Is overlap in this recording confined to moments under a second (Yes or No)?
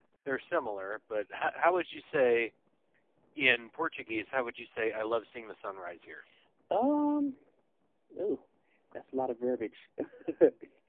Yes